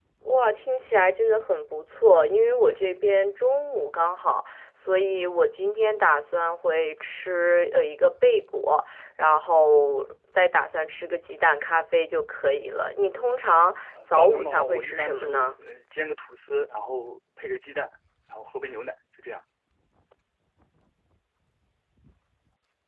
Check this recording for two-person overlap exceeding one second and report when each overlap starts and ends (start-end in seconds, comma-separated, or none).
14.1-15.5